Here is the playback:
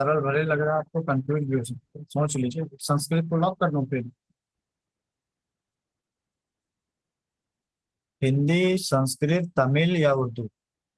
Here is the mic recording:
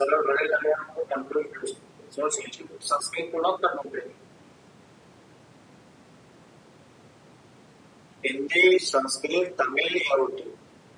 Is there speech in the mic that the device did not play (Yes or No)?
No